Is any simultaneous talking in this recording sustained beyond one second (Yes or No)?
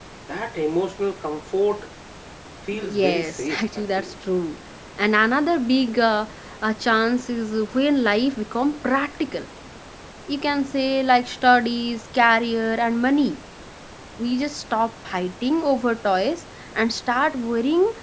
Yes